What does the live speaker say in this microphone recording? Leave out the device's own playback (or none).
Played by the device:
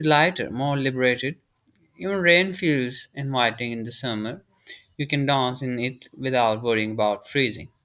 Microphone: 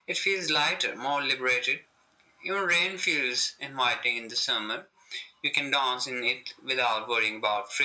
none